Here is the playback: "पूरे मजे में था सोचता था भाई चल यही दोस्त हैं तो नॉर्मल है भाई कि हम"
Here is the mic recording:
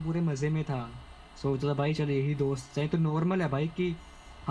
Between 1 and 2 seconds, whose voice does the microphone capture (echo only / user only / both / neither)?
echo only